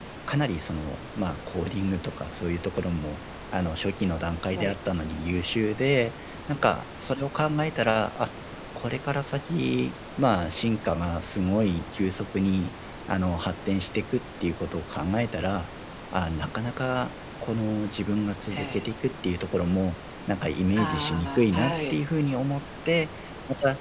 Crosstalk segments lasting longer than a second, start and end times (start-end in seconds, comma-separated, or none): 20.8-22.0